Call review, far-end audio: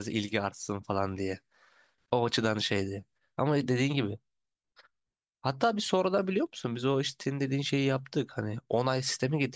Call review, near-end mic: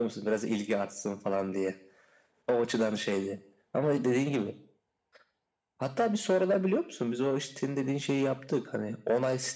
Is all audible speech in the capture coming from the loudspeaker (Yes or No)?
Yes